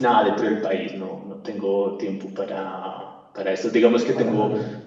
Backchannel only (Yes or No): Yes